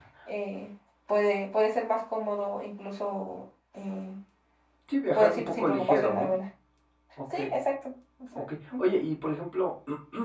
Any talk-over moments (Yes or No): Yes